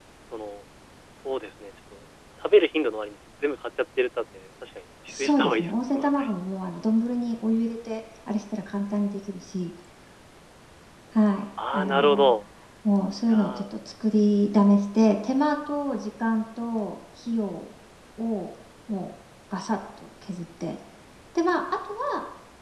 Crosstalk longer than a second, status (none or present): present